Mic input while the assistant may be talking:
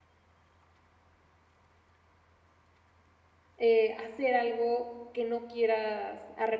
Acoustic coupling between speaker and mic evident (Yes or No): No